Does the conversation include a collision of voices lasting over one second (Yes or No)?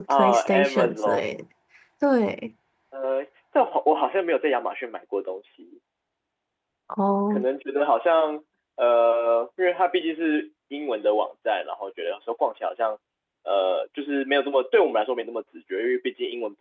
Yes